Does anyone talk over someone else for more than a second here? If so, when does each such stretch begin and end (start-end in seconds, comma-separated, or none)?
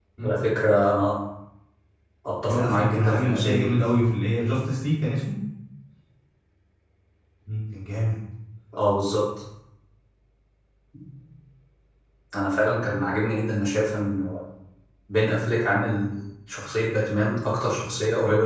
2.4-3.7